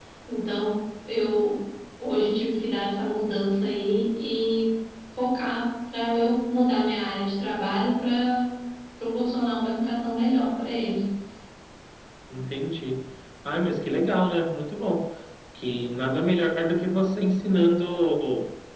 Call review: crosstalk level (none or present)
none